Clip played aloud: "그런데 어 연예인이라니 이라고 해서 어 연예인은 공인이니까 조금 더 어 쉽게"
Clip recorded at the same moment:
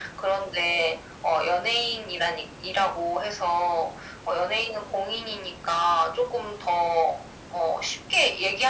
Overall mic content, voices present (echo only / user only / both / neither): echo only